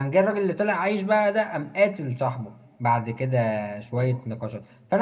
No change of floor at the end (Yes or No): Yes